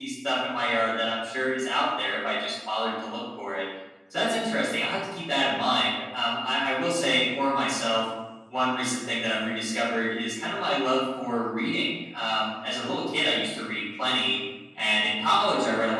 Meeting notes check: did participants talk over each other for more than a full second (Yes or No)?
No